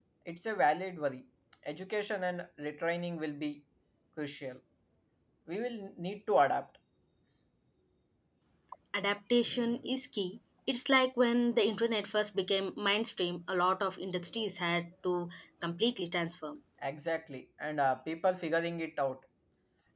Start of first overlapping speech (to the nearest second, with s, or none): none